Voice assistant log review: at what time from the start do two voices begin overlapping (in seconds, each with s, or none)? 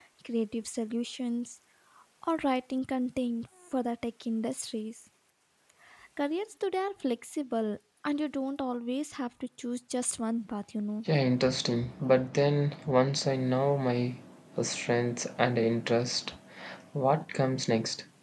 none